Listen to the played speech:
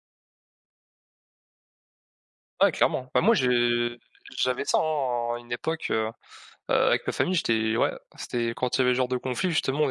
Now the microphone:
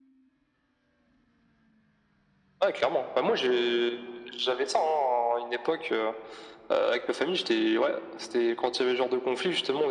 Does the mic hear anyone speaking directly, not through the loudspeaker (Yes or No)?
No